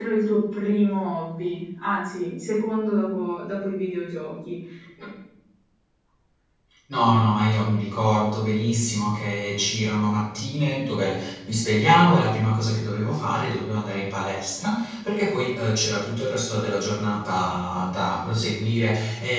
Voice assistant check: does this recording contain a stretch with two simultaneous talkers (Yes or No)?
No